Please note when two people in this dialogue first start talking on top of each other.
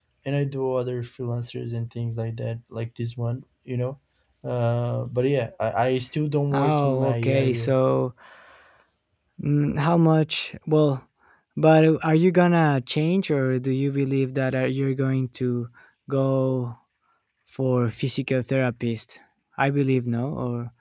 6.5 s

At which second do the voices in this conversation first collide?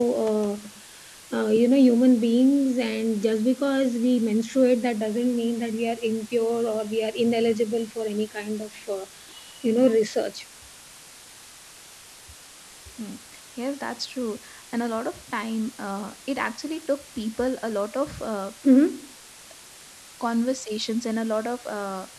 none

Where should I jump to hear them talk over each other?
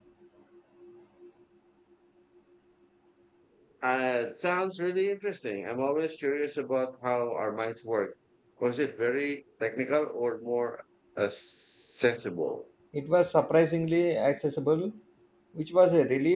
none

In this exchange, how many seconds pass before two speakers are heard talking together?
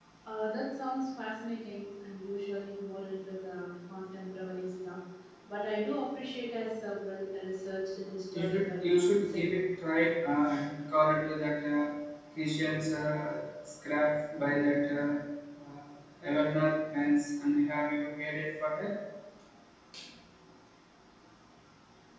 8.3 s

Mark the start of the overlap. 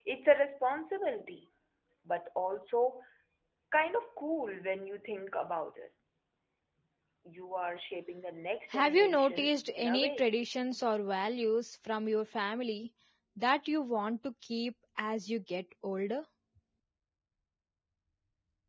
8.7 s

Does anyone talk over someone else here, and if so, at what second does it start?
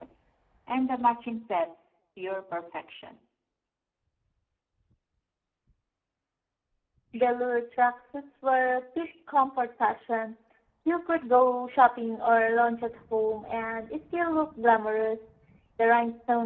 none

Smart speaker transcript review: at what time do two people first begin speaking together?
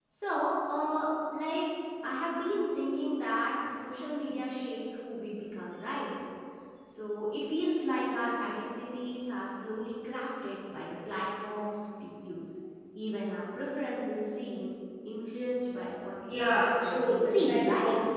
16.2 s

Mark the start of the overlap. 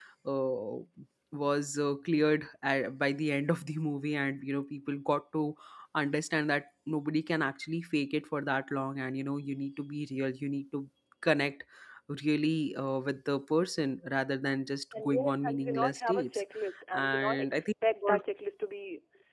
14.9 s

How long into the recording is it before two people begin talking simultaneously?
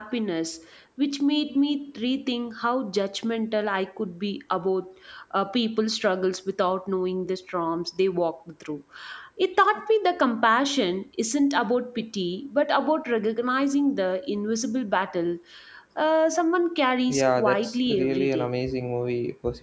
17.1 s

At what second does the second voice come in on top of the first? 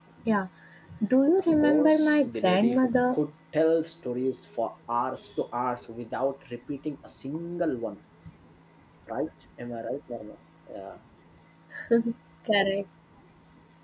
1.6 s

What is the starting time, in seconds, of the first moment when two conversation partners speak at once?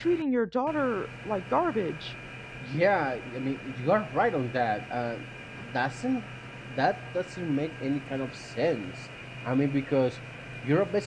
none

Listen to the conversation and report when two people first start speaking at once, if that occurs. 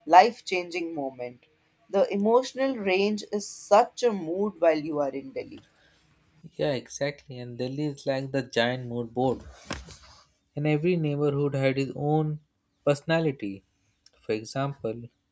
none

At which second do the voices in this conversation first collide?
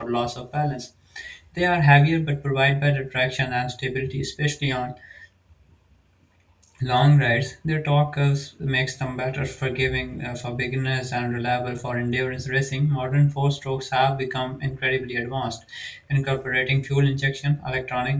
none

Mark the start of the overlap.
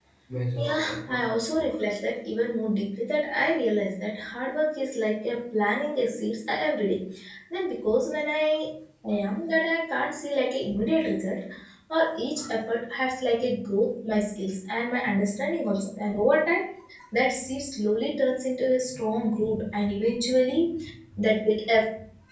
0.6 s

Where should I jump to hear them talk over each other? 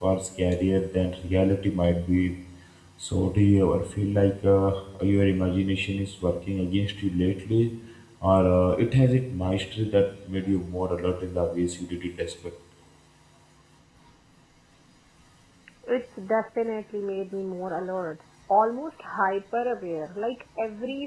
none

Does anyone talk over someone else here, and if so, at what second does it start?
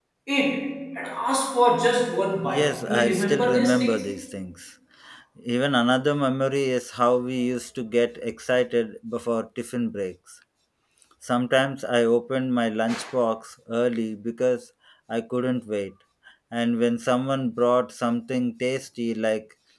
2.4 s

